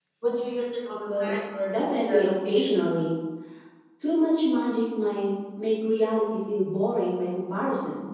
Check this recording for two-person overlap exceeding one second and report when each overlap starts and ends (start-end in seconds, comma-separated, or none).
1.7-2.9